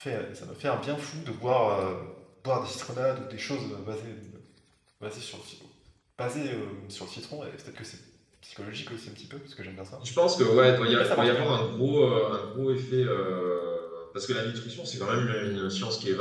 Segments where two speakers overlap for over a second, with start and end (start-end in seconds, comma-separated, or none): none